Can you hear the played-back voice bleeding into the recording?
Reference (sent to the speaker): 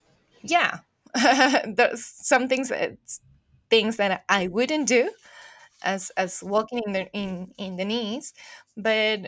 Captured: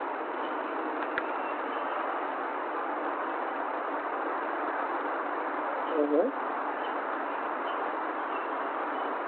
No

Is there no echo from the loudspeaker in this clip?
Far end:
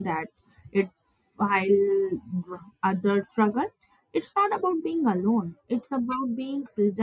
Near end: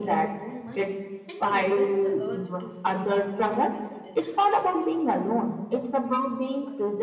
No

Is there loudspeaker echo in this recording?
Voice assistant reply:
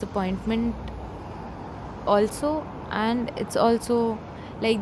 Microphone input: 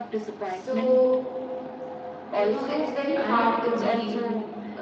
Yes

